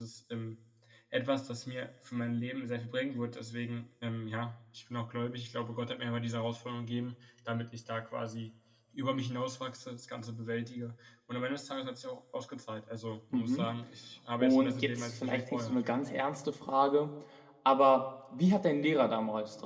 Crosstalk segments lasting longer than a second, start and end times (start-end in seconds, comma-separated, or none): 14.4-15.8